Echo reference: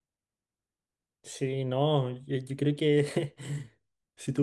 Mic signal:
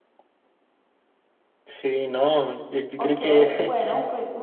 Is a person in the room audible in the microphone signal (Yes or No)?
Yes